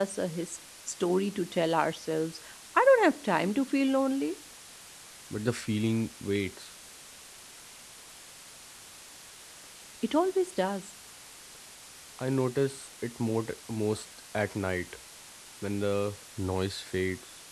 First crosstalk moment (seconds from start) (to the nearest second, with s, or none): none